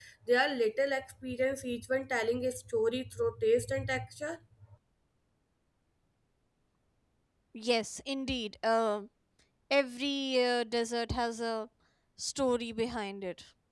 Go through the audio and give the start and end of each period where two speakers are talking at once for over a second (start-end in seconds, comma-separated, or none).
none